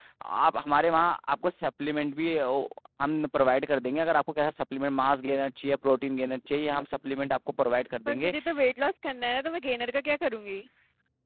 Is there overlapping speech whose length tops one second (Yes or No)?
No